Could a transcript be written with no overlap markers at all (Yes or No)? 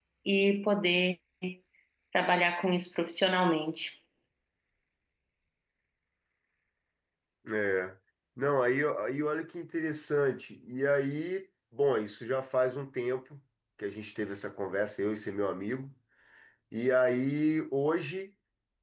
Yes